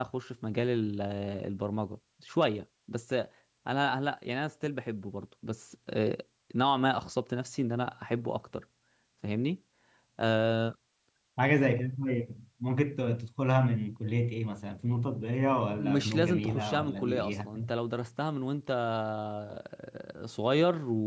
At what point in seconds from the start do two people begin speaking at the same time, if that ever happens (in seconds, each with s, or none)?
15.7 s